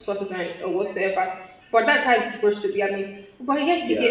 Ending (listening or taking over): listening